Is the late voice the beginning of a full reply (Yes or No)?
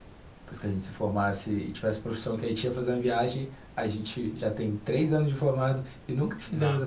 Yes